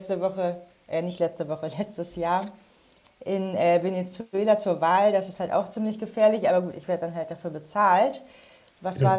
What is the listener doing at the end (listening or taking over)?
listening